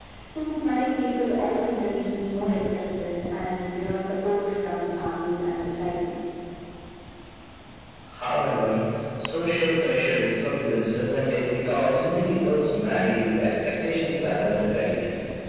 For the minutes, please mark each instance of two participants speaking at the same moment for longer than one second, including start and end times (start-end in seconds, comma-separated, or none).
none